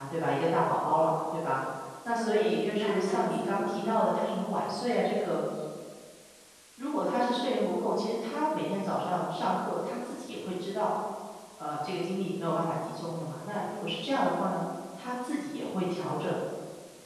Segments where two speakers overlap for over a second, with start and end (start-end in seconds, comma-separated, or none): 2.0-4.0